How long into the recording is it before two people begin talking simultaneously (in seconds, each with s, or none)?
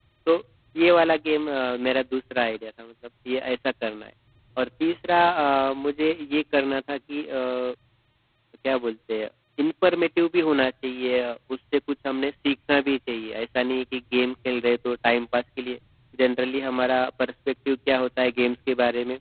none